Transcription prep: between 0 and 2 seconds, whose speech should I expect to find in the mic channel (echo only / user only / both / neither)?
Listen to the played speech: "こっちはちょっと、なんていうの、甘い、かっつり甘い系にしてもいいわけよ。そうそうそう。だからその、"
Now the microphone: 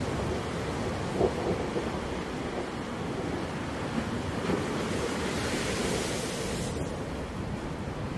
neither